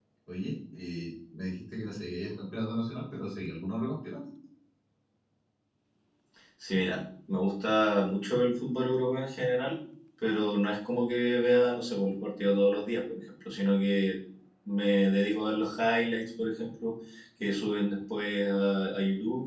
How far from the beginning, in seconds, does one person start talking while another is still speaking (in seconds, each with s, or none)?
none